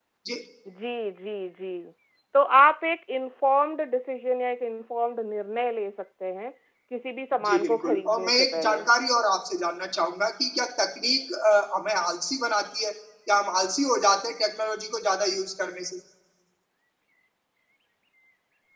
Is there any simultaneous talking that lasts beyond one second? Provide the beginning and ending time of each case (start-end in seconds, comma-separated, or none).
7.4-8.8